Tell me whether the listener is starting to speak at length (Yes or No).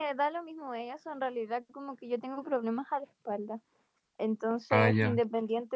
No